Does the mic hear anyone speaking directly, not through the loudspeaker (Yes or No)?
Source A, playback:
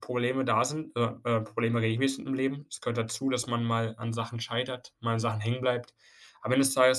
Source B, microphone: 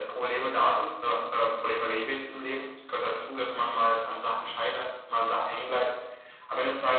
No